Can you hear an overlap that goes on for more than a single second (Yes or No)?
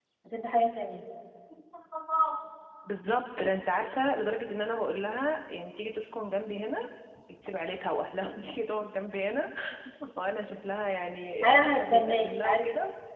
Yes